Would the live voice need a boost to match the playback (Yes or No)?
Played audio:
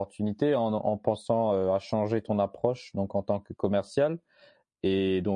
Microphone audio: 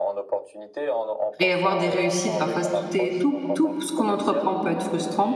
No